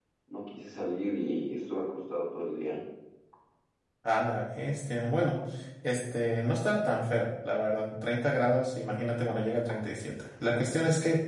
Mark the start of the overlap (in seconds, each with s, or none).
none